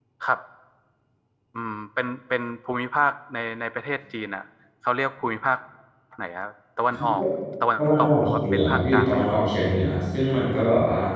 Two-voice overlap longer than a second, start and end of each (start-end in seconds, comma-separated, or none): 7.8-9.2